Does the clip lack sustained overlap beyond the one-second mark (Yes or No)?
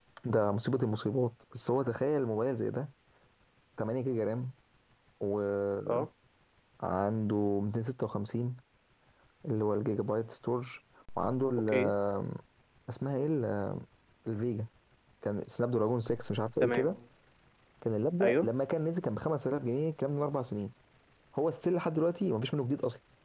Yes